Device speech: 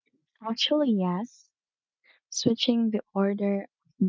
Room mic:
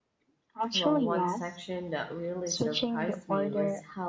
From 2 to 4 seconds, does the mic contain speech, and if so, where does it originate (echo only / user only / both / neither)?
both